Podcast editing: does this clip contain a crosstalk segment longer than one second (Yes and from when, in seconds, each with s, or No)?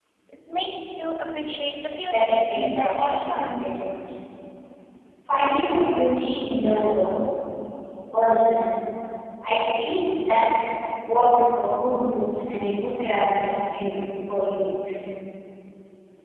Yes, from 2.0 s